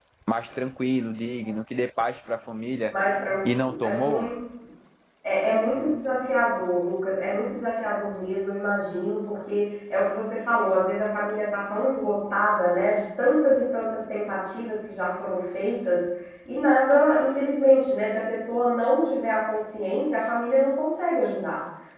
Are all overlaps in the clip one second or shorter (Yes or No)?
Yes